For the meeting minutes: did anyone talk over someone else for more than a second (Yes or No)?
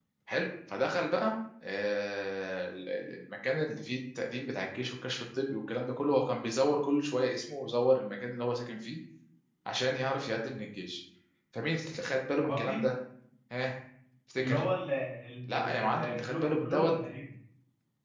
Yes